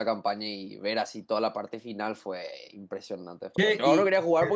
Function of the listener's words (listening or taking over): listening